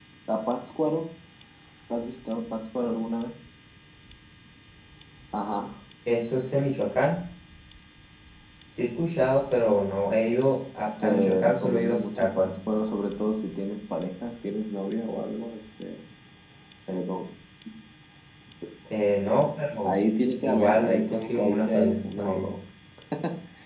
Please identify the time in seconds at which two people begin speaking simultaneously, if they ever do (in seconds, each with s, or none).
11.0 s